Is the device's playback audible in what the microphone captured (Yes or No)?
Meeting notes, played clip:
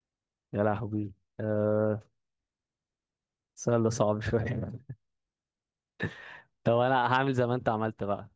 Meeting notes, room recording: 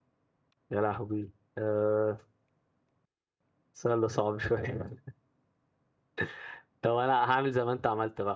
Yes